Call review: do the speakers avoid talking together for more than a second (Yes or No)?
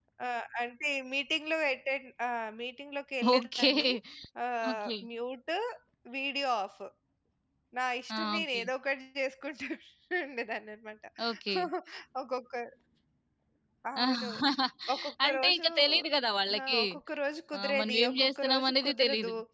No